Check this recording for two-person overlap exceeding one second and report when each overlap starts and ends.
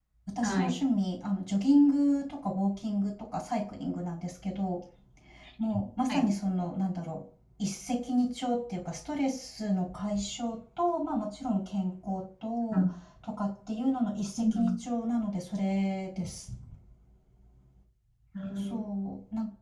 none

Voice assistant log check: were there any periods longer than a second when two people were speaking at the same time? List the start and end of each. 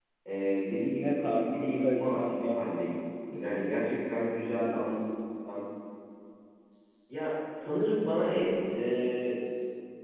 1.0-3.0

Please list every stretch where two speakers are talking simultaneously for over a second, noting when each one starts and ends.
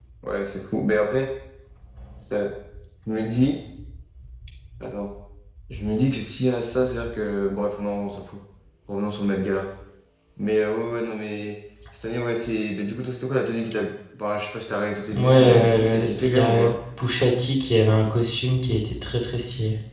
15.1-16.7

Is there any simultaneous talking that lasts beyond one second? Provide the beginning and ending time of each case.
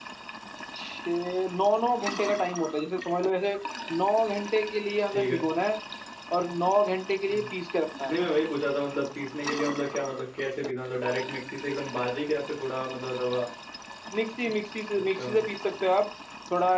none

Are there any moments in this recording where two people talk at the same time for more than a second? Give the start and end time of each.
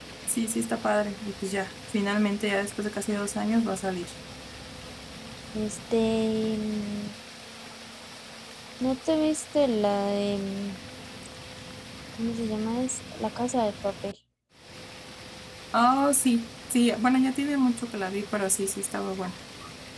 none

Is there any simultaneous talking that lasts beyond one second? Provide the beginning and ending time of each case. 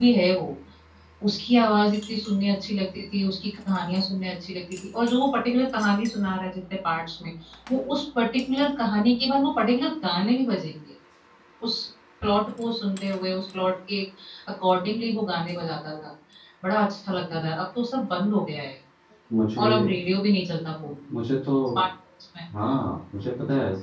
none

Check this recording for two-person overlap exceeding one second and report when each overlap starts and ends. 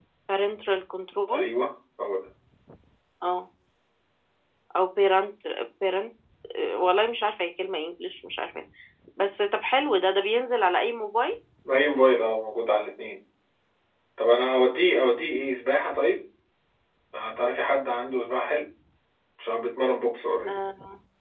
none

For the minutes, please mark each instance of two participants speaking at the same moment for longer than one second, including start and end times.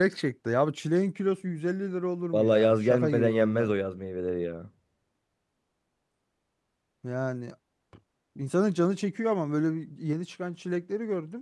2.3-3.7

